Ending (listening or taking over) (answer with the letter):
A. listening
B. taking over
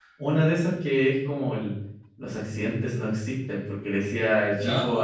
A